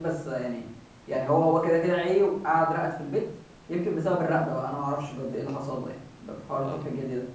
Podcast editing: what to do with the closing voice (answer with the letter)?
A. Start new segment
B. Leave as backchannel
B